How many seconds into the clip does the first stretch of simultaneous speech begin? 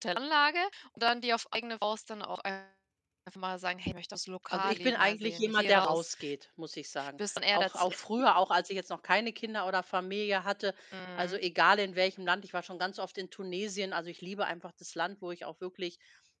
4.5 s

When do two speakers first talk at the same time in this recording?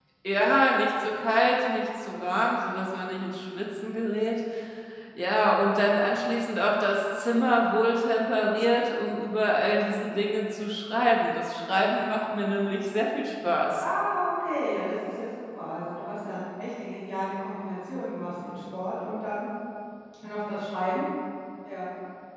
none

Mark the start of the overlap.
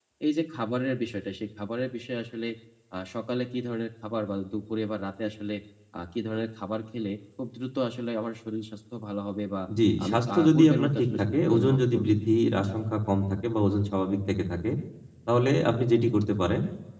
10.0 s

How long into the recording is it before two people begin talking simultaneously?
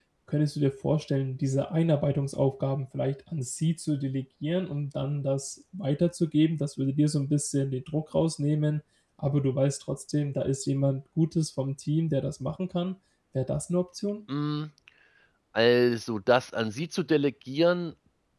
none

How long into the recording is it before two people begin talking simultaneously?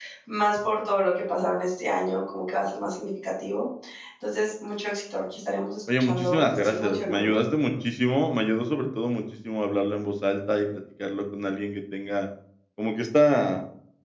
5.9 s

